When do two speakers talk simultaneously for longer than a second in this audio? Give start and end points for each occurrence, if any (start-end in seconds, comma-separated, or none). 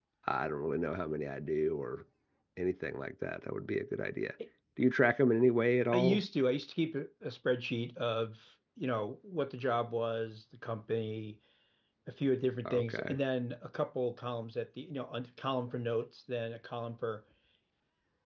none